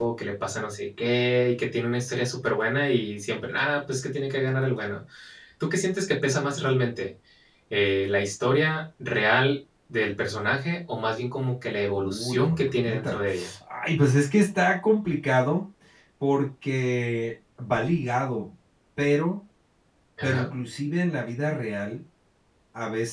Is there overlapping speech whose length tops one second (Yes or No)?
Yes